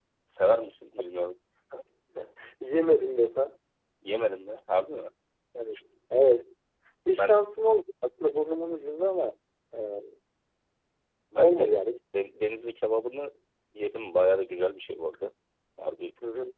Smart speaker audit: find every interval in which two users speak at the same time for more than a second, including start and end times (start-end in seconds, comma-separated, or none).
none